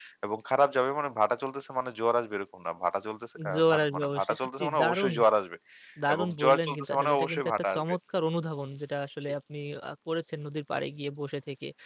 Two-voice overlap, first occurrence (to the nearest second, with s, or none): 4 s